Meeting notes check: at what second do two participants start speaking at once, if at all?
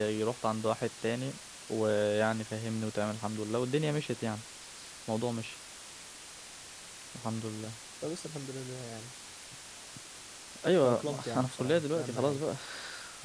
10.8 s

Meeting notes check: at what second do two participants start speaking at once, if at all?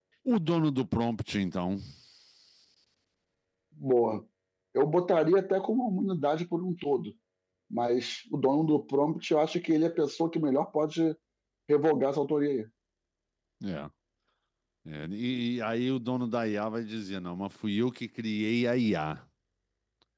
none

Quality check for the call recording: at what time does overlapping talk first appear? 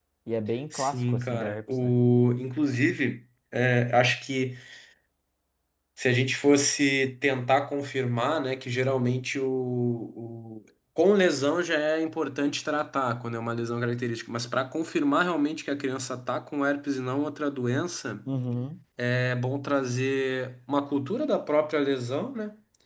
0.7 s

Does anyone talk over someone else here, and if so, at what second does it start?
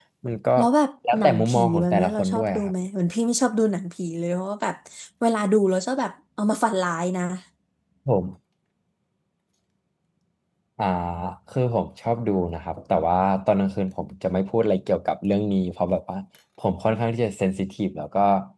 1.1 s

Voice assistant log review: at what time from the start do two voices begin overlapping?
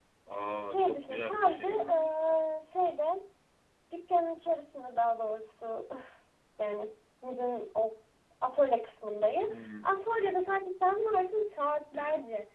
0.6 s

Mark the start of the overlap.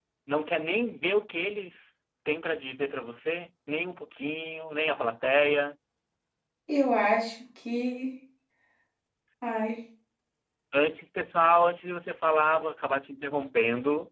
none

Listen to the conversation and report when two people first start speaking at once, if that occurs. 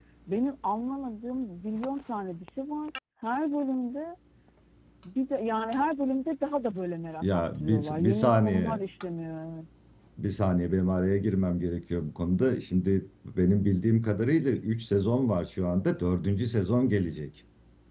7.2 s

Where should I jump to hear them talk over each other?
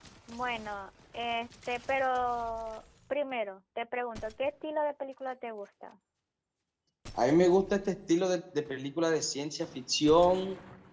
none

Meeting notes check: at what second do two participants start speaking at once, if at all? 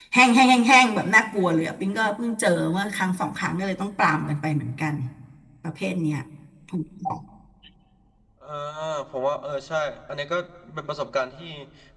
none

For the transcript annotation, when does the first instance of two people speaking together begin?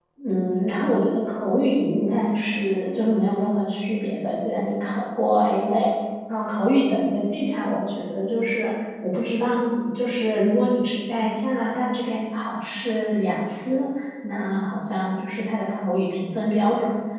none

